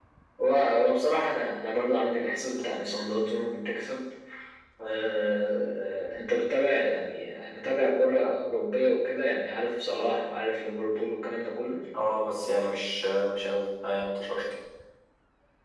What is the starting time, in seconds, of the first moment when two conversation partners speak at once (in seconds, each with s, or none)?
none